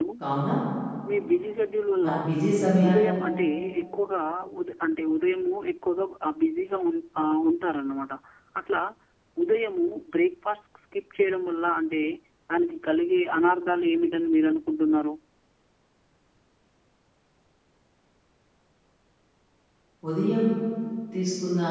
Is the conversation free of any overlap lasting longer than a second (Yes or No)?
Yes